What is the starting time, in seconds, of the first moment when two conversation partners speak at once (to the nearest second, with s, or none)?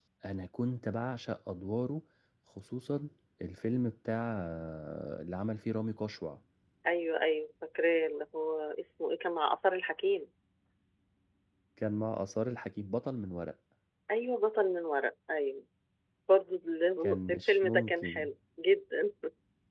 17 s